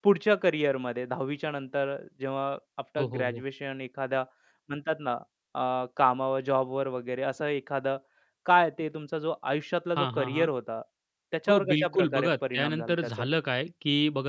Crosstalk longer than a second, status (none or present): present